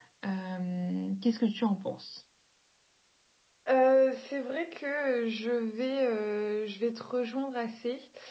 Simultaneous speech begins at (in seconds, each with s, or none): none